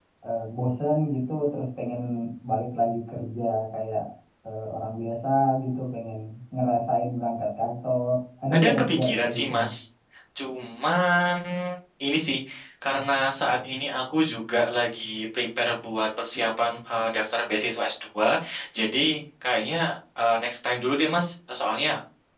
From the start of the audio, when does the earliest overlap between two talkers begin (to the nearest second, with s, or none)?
9 s